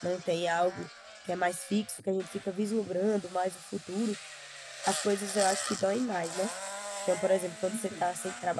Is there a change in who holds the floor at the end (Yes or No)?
No